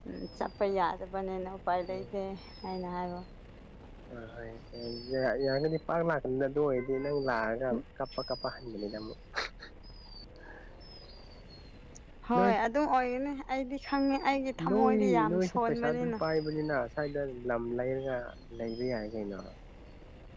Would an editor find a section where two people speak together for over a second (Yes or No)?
Yes